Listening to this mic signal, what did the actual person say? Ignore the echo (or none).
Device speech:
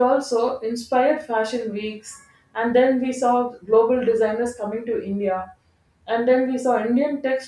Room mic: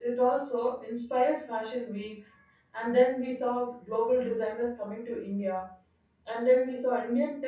none